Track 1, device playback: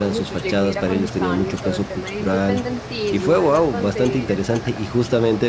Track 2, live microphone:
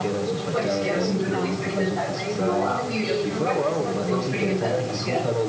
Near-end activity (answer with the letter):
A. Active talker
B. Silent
A